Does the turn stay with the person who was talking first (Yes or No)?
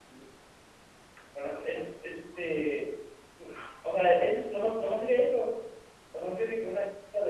Yes